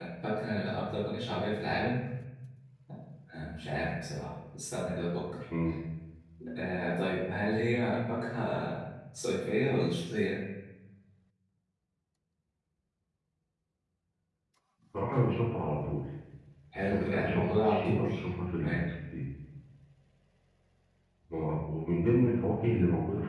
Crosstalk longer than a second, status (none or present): present